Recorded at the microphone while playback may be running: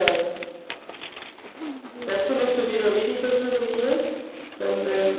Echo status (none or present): present